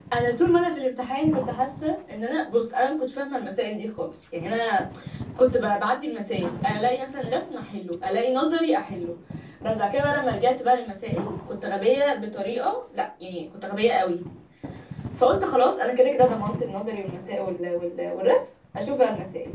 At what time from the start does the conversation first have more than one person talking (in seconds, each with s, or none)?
none